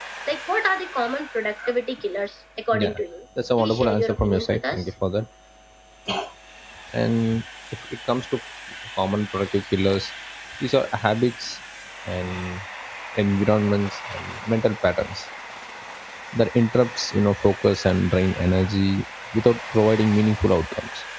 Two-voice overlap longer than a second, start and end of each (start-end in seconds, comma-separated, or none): 3.6-4.8